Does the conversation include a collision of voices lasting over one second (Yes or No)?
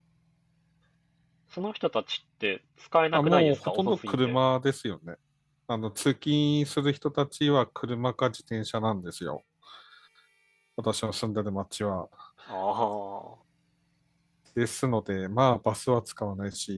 Yes